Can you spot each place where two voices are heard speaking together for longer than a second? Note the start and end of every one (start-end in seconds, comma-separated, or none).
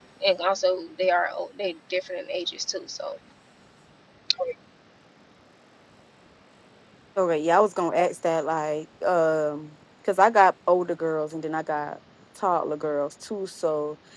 none